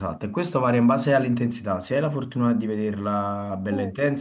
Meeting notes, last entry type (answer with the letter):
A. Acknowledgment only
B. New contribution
A